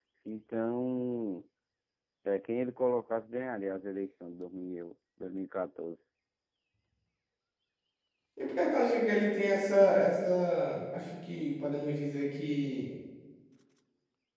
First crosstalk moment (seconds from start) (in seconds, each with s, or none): none